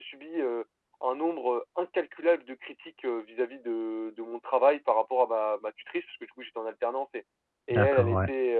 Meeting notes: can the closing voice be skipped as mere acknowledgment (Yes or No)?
Yes